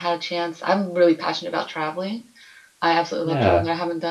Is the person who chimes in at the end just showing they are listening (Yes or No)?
Yes